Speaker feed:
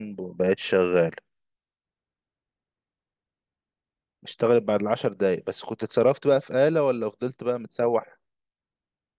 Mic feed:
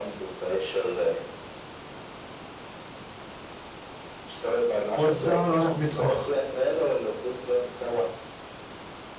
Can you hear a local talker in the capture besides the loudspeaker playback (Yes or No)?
Yes